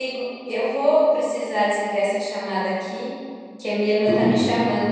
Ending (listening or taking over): listening